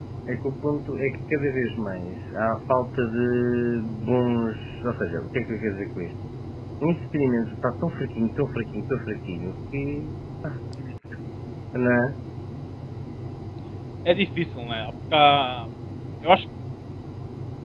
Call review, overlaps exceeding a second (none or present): none